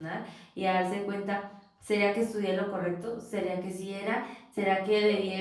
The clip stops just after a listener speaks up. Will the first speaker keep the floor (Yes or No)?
Yes